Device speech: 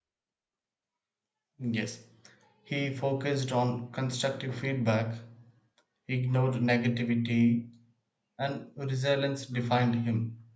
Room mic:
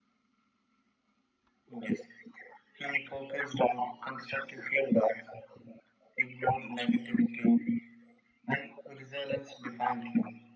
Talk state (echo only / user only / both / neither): echo only